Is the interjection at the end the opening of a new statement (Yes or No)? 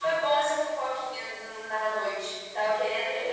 Yes